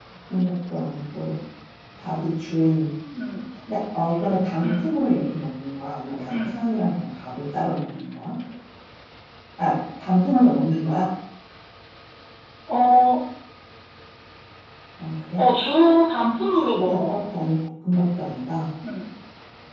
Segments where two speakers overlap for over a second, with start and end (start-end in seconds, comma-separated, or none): none